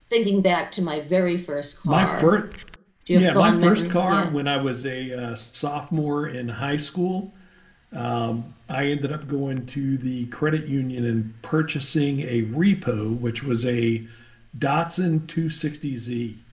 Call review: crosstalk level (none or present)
present